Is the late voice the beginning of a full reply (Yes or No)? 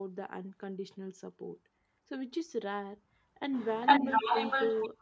No